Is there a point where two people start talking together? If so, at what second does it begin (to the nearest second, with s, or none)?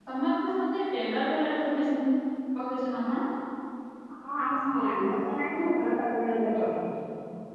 none